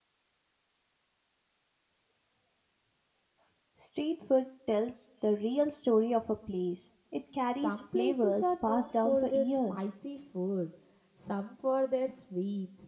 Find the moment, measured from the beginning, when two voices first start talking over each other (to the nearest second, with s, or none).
7 s